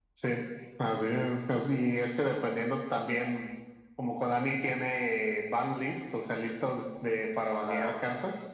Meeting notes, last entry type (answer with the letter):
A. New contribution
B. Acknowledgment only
B